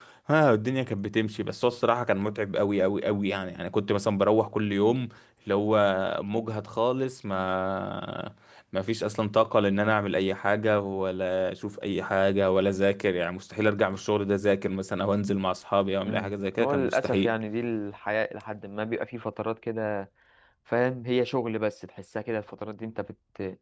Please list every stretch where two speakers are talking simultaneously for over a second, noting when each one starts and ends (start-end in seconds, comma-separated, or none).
16.1-17.3